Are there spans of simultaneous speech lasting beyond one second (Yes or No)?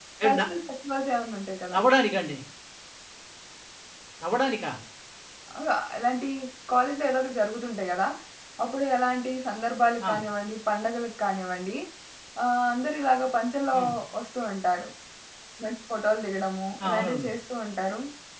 No